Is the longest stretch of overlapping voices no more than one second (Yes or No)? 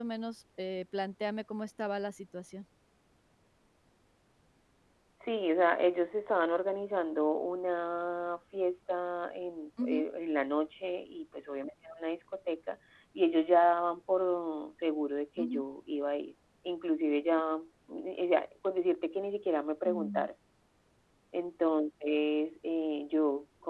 Yes